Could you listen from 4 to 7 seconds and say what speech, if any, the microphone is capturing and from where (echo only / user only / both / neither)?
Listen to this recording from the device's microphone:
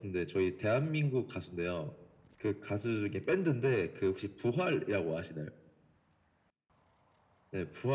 echo only